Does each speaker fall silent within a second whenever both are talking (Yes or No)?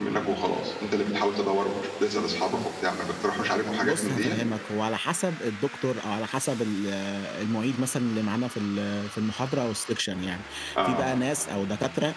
Yes